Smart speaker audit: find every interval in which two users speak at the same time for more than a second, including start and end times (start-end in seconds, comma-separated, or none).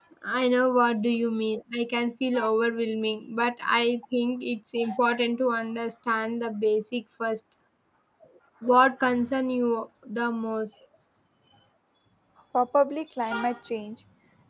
none